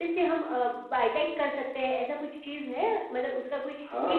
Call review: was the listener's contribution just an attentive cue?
No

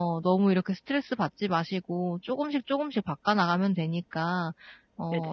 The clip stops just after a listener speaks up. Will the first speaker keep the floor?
Yes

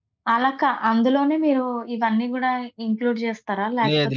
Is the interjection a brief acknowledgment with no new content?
No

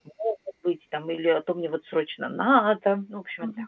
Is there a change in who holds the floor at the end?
Yes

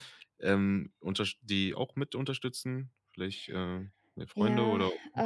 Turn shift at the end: Yes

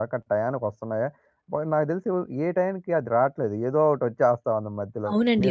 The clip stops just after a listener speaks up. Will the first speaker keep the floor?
No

